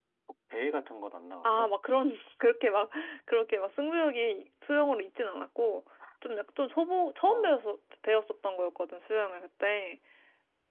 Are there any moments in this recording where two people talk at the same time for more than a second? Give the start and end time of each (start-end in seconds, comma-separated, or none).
none